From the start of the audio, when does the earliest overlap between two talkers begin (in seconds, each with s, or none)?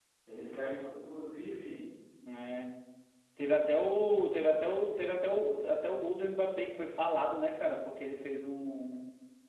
none